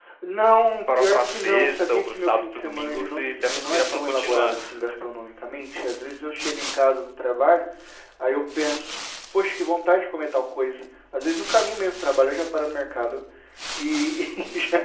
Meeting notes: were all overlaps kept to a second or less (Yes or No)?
No